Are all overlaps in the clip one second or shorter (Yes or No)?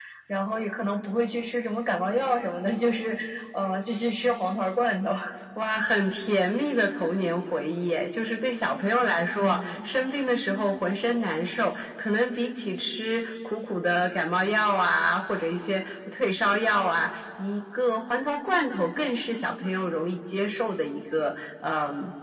Yes